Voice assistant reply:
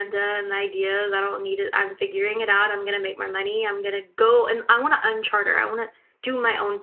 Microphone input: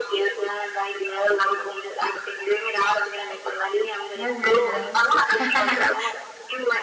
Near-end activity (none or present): present